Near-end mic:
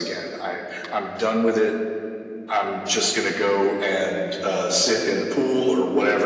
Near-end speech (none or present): none